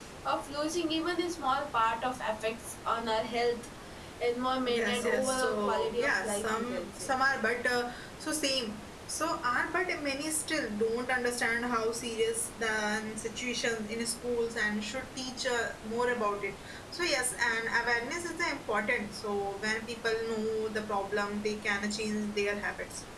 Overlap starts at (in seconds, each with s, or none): 4.7 s